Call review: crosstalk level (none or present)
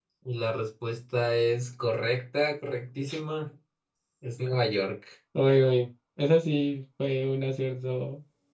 none